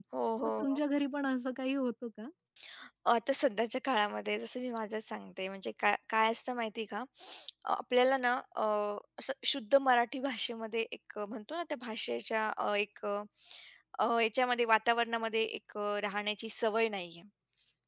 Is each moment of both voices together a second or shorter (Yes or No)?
Yes